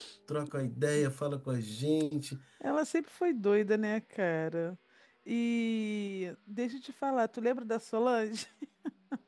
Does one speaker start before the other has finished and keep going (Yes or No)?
No